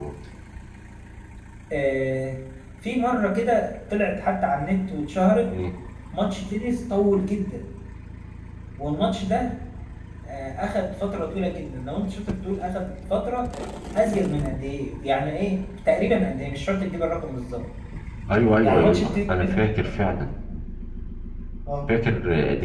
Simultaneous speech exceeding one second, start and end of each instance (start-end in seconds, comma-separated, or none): 18.6-20.2